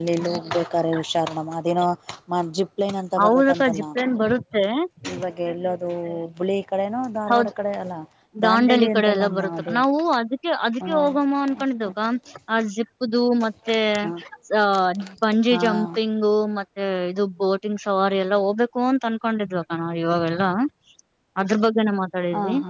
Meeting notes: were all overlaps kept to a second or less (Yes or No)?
No